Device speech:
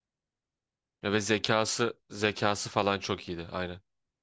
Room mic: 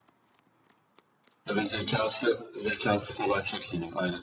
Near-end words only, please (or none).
none